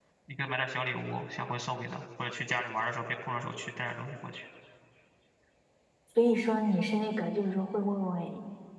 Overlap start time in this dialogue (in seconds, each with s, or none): none